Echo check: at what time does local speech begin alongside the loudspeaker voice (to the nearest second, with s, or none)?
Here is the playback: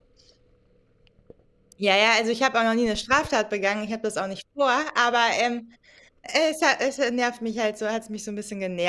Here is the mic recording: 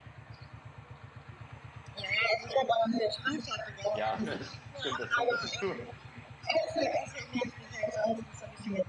4 s